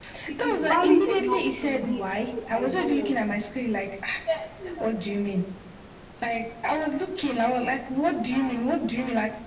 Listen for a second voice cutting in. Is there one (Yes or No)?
Yes